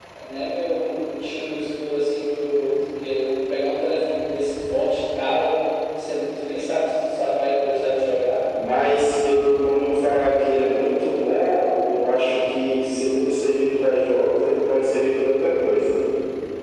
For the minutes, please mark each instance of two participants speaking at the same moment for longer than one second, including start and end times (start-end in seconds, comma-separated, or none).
none